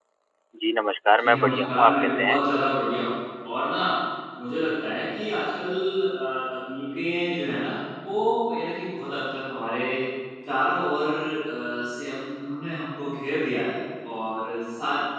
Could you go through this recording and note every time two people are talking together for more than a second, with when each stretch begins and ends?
1.2-2.4

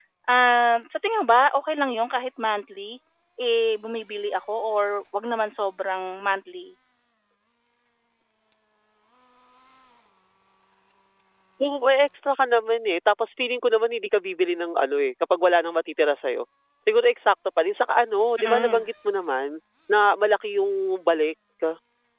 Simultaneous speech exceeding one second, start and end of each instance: none

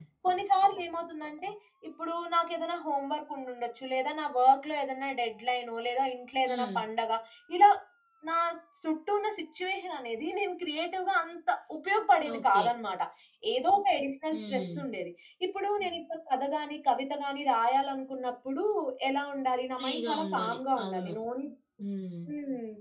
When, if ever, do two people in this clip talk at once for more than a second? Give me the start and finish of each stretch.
19.8-21.1

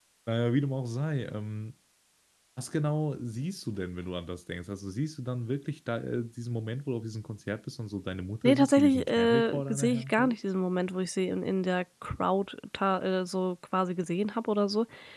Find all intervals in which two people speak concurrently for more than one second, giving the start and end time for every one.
8.4-10.4

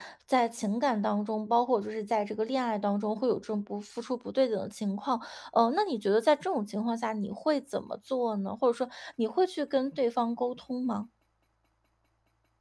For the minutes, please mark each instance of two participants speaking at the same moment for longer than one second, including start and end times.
none

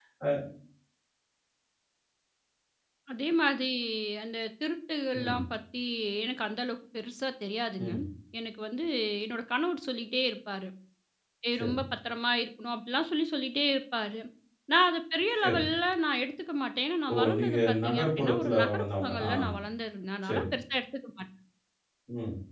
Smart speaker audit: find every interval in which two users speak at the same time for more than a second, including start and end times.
17.1-19.3

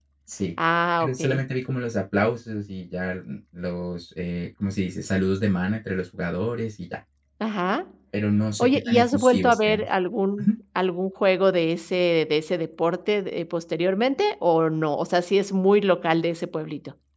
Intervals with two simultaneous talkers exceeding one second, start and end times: 8.6-9.8

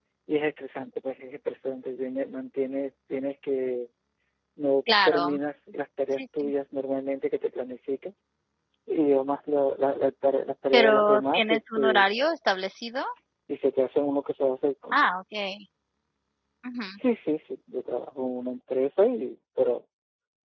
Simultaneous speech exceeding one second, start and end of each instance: 10.7-12.1

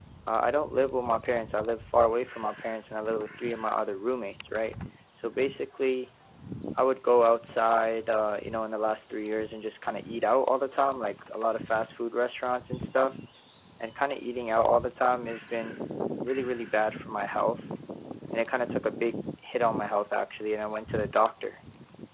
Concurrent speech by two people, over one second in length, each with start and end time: none

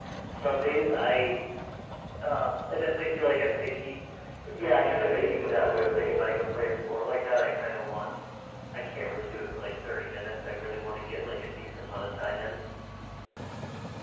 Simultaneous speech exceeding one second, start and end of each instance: 4.6-6.1

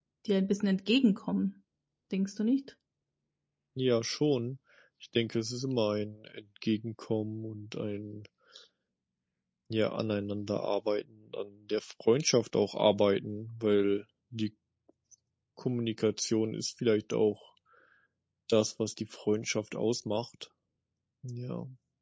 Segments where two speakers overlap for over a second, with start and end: none

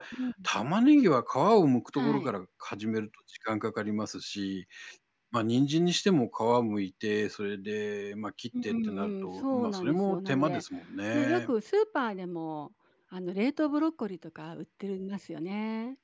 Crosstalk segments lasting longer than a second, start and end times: 8.6-10.6

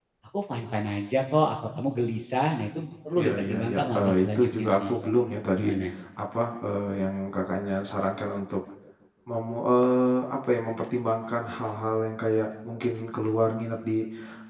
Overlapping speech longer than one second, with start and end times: 3.2-5.0

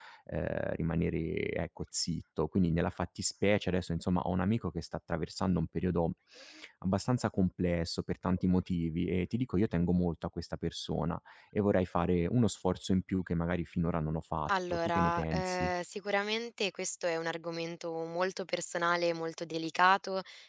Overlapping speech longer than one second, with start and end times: 14.5-15.7

